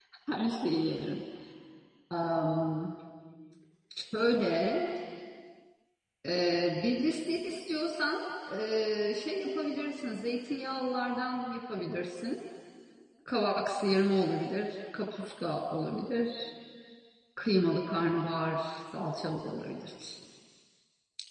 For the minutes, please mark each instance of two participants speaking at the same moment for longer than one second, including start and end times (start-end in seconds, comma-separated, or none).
none